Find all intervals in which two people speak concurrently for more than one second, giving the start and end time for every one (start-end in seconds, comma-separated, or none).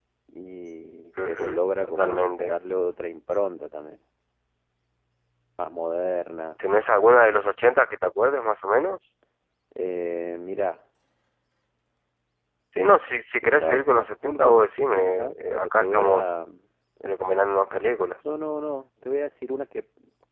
1.2-2.5, 13.6-16.2